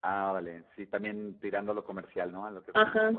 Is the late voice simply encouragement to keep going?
No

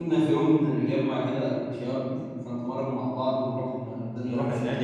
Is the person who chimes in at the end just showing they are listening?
No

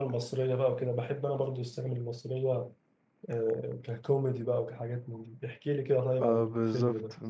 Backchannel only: No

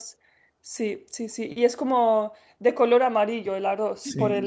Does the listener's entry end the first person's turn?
Yes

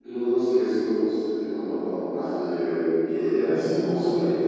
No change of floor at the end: Yes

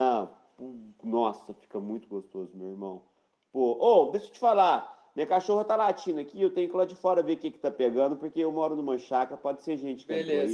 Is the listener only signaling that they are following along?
No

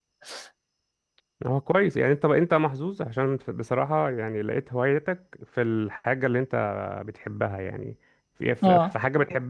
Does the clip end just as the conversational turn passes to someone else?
No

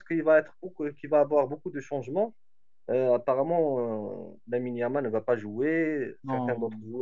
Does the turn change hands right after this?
No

